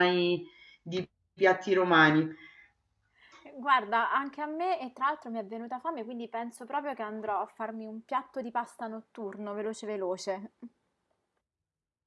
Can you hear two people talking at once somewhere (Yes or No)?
No